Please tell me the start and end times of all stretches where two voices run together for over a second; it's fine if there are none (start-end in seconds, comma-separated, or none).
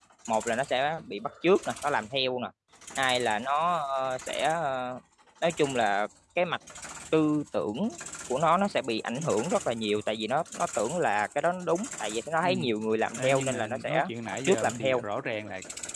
13.2-15.0